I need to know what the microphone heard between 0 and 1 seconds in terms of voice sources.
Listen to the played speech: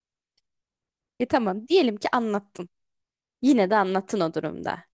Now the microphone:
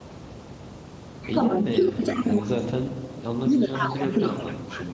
neither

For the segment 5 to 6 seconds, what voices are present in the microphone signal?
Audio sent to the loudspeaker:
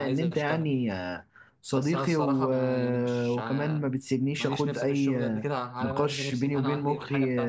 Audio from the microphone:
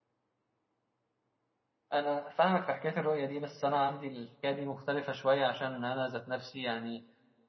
user only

